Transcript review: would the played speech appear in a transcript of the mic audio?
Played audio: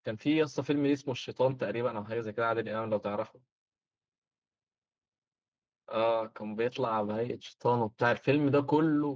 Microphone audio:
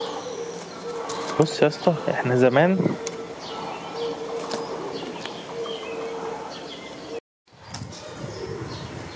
No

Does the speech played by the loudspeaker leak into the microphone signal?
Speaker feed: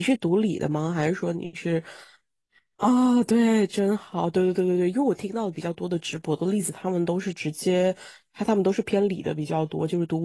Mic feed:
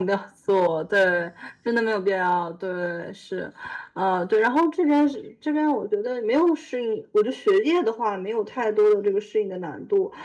No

